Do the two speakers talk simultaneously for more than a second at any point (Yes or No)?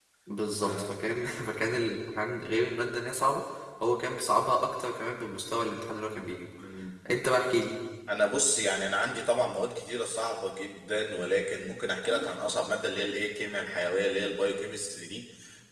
No